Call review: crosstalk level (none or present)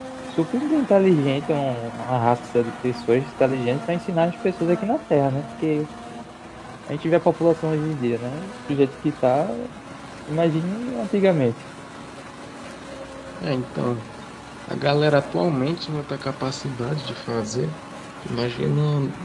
none